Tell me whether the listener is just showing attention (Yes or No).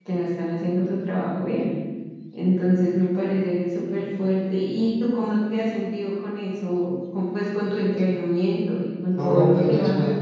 No